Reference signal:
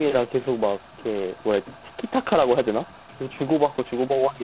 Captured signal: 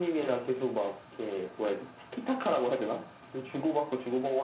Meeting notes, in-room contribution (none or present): none